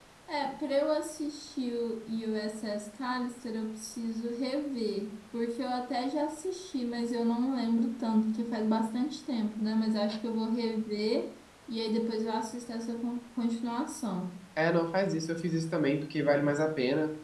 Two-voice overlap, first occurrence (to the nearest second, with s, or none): none